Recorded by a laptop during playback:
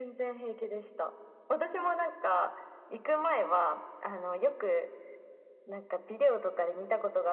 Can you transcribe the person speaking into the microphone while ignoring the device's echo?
none

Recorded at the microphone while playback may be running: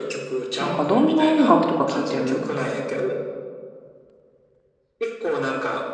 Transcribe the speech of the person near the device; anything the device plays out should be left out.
なんかどんな音楽とか聴いてる

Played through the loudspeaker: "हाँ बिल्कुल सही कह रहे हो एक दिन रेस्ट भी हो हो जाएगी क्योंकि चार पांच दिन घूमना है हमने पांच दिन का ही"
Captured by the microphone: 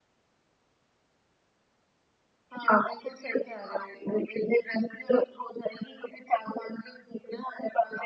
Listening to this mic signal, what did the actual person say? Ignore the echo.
none

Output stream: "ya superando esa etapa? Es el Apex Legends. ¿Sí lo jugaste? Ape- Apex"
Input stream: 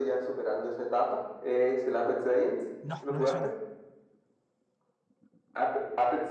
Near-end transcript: No, no me suena.

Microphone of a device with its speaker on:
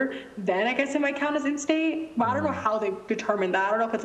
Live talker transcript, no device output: mm,

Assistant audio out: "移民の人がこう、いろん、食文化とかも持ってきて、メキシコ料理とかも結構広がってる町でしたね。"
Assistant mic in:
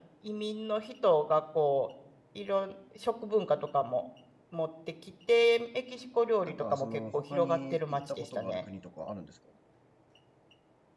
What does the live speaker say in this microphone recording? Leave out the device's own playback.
なんか、その、他に行ったことがある国とかあるんですか

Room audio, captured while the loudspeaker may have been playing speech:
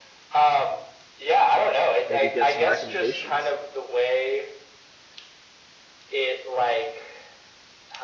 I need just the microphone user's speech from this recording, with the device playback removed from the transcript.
maybe get some recommendations.

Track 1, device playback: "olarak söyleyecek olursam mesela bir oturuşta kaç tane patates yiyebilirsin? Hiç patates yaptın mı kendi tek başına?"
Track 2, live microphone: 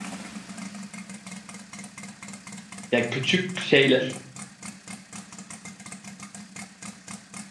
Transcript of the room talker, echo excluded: ya küçük şeyle.

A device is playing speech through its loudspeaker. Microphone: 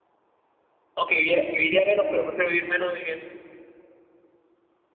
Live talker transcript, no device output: Aunque viviera, viviría menos, pero prefiero vivir menos y bien.

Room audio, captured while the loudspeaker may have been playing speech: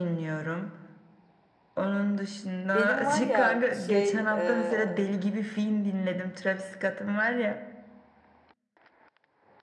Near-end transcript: Benim var ya şey eee,

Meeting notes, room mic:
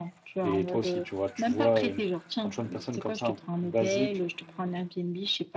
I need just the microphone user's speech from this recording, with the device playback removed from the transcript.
Et toi aussi, tu vois, tu vois, euh, quand tu vois une personne comme ça, un truc basique.

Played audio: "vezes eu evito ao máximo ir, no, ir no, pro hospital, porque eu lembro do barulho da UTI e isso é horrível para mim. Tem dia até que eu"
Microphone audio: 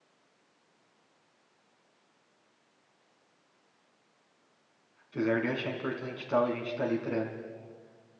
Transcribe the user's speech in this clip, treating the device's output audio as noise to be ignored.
Apesar de eu achar importante e tal, a gente tá ali para

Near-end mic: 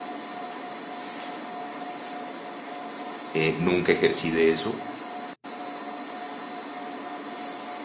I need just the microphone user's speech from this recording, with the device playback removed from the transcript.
eh, nunca ejercí de eso.

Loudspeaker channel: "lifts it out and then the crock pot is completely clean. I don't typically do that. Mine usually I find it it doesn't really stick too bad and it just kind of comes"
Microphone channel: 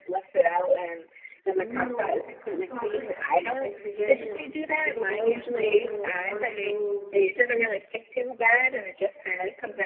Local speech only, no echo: meal. Uh, so I put, I think it was like spaghetti and meatballs. I saw it on one of those

